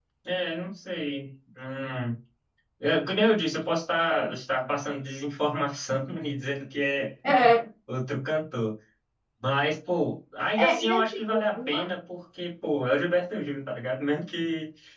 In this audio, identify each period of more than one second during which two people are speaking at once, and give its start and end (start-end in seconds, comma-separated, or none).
10.6-11.8